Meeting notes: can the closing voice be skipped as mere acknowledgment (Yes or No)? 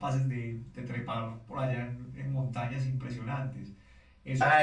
No